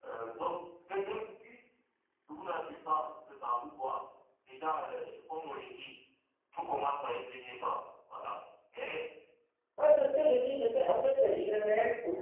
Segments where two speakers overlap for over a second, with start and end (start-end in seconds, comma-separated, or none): none